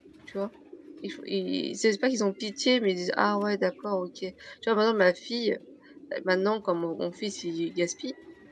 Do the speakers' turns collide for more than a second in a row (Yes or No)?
No